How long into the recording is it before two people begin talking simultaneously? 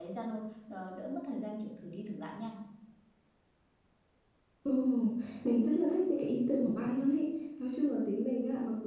none

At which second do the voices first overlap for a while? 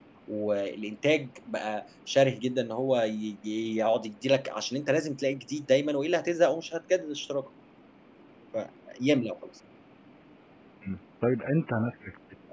none

